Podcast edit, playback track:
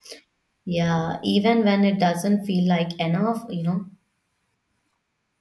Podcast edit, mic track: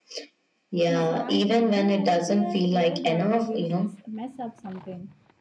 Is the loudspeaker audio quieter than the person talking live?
No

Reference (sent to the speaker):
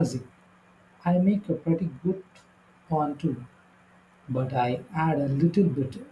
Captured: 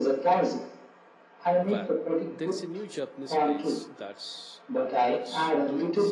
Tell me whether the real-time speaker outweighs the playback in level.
No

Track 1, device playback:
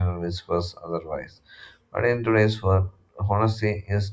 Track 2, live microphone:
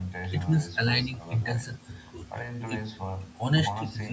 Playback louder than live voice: No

